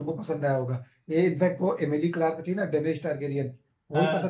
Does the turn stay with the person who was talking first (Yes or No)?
Yes